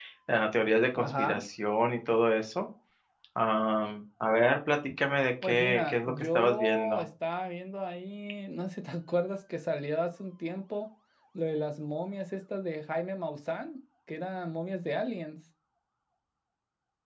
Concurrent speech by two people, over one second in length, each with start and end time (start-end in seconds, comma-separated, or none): 5.4-7.0